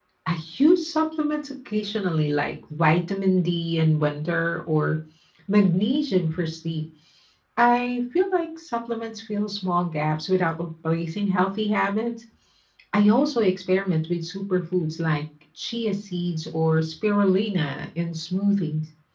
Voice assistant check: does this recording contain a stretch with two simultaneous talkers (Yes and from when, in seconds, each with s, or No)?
No